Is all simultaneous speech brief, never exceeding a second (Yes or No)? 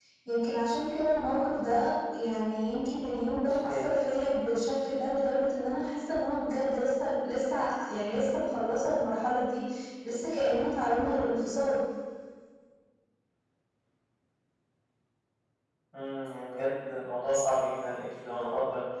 Yes